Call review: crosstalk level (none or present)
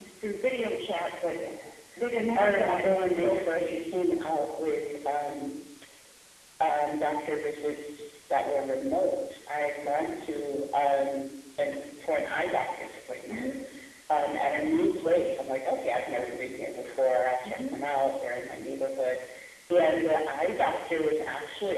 present